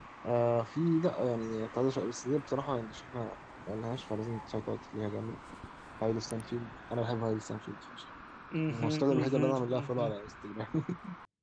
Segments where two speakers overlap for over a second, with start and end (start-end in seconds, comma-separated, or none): 8.7-10.1